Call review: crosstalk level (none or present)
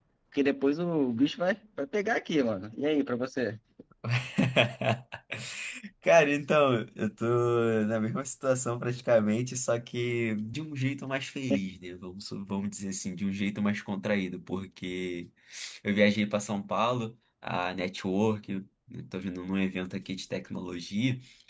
none